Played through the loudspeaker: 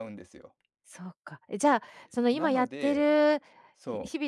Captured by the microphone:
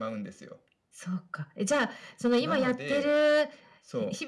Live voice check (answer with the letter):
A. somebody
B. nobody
B